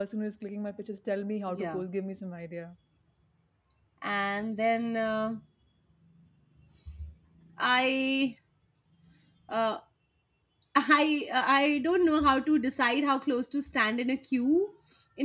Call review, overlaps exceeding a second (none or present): none